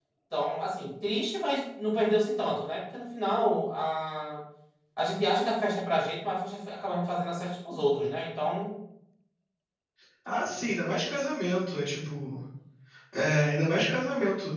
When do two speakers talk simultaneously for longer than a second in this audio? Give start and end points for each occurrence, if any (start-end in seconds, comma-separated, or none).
none